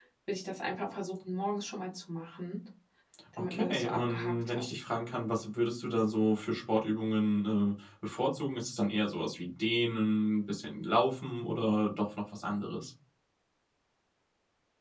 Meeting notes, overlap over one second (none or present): present